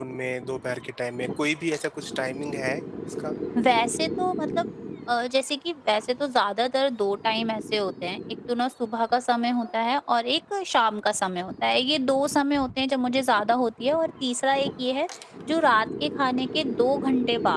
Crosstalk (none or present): none